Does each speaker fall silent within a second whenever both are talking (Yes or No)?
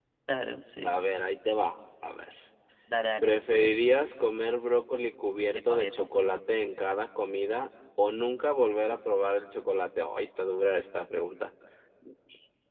Yes